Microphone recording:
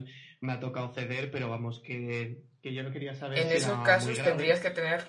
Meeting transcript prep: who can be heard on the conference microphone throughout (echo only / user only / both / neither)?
both